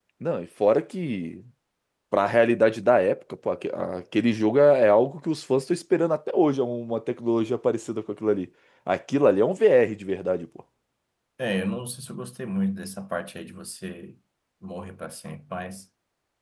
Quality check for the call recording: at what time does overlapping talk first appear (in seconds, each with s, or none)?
none